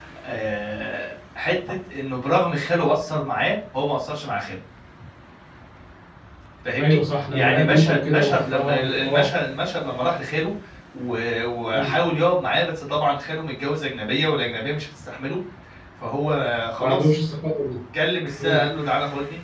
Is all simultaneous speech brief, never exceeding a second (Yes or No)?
No